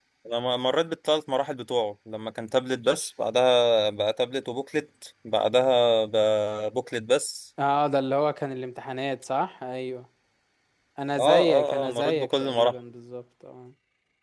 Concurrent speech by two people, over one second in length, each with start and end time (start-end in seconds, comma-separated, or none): 11.2-12.7